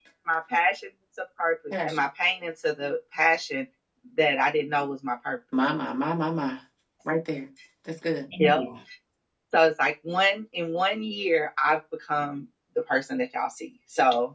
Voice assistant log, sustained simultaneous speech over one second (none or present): none